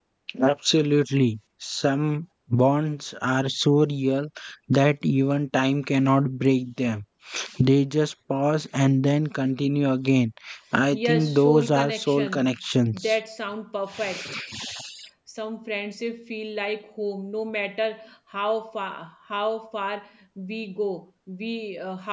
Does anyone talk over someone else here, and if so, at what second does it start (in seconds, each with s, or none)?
10.9 s